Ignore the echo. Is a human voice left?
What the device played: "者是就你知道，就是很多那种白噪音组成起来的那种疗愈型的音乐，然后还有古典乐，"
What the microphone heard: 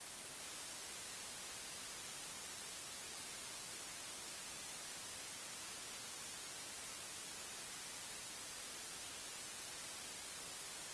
No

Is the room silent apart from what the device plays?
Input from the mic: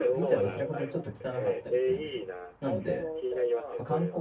No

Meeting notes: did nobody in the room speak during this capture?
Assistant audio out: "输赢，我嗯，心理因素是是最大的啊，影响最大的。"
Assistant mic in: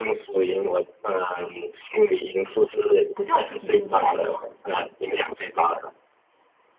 No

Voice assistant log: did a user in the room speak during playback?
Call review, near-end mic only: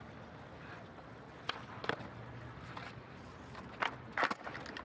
No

